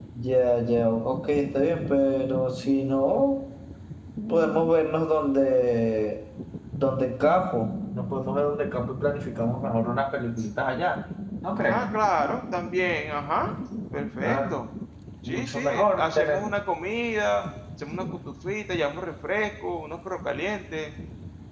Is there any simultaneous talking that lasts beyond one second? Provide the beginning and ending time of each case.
15.3-16.5

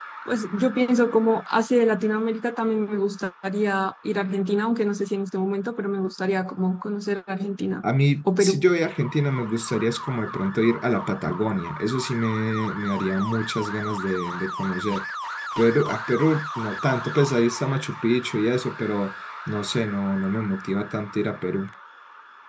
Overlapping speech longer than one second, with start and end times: none

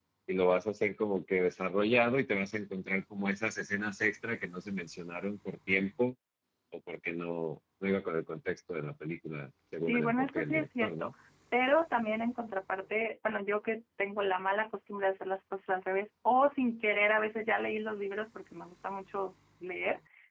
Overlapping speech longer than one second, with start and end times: 9.8-11.1

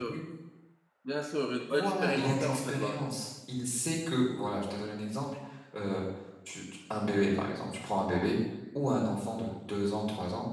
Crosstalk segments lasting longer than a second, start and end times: 1.7-3.1

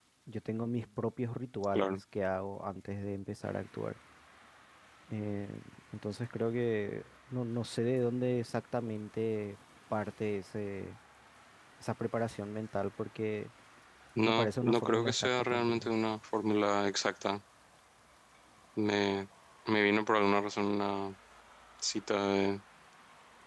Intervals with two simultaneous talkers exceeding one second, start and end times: 14.2-15.9

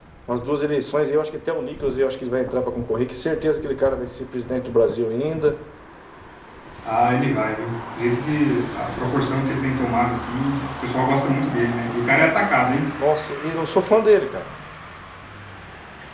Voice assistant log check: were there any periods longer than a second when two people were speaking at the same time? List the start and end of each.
none

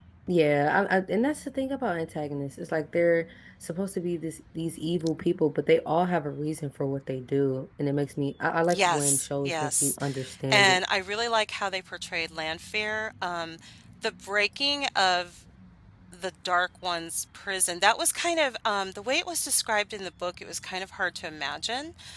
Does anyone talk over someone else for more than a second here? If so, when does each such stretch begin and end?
8.7-10.0

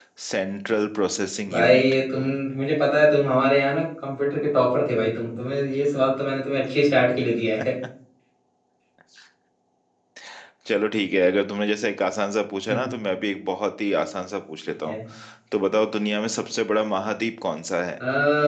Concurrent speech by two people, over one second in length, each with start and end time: none

